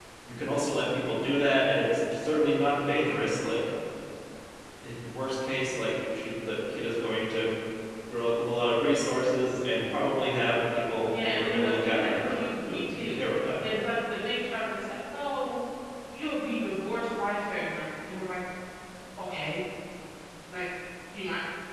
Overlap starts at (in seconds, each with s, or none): 11.1 s